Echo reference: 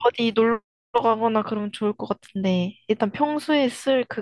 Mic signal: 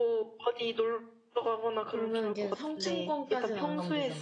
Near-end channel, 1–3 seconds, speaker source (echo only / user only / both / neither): both